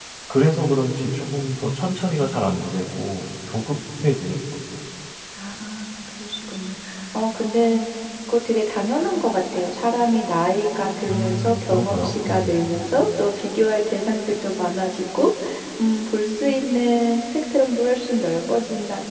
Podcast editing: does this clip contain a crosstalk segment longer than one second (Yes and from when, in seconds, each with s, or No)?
Yes, from 11.1 s